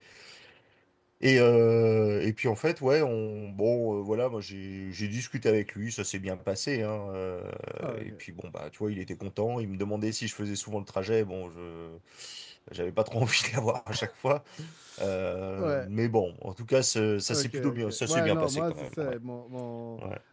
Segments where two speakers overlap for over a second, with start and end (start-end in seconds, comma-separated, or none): 17.3-19.1